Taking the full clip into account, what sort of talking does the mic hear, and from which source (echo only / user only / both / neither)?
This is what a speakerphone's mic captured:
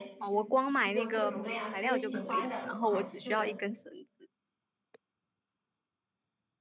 both